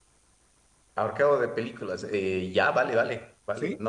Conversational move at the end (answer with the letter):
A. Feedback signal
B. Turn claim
A